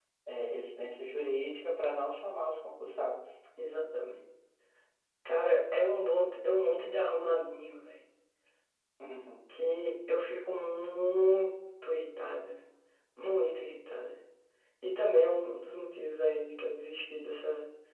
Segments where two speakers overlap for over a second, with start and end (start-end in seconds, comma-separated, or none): none